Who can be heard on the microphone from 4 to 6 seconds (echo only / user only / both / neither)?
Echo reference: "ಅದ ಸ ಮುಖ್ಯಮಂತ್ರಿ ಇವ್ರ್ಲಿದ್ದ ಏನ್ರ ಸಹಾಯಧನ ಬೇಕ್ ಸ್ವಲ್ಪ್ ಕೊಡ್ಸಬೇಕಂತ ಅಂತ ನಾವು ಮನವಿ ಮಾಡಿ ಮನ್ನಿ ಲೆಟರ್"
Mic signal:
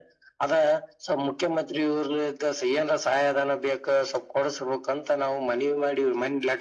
echo only